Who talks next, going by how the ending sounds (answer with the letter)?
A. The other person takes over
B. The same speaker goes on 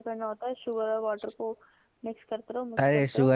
A